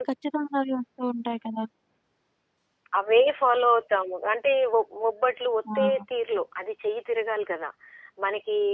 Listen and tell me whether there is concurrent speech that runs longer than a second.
No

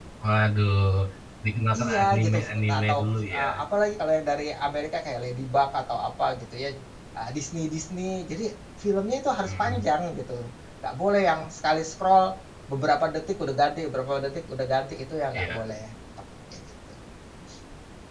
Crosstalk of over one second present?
Yes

